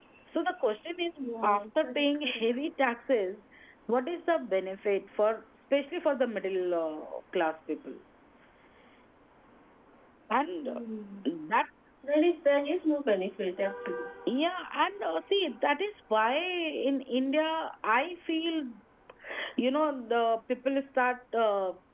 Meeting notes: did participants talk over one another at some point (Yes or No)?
Yes